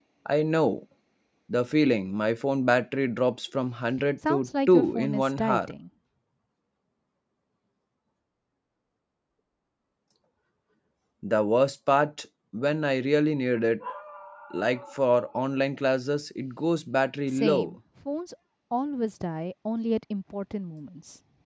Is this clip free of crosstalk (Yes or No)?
No